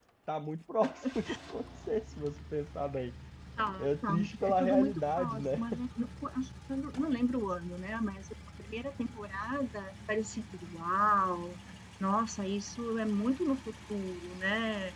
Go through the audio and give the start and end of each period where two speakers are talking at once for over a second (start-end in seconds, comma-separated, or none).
3.8-5.6